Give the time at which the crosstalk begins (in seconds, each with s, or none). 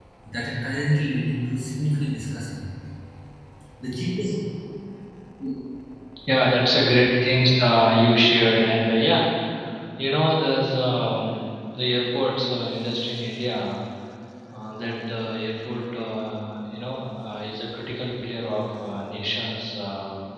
none